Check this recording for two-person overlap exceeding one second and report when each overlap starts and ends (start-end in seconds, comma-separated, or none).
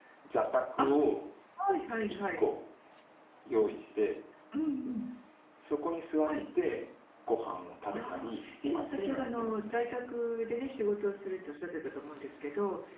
7.9-9.7